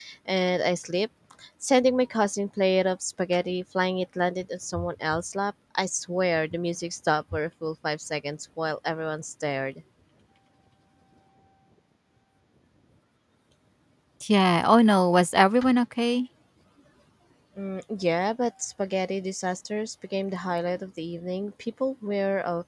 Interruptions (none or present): none